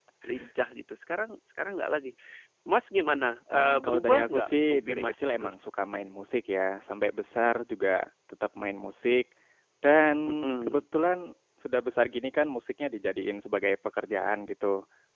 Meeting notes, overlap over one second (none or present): present